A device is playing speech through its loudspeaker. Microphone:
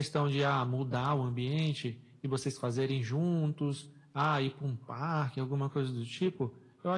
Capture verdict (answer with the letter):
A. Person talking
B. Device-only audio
B